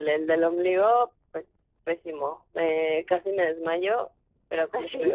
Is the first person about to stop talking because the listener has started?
No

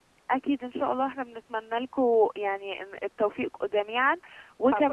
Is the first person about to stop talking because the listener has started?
Yes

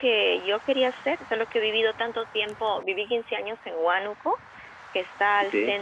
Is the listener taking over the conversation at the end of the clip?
No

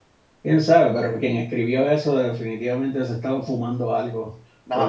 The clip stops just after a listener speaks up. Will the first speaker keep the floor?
No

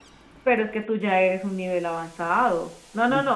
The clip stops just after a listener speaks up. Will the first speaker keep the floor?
Yes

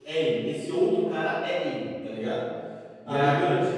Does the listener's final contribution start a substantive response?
No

